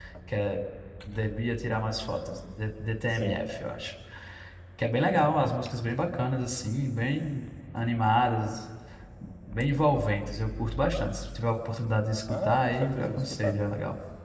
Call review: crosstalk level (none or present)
present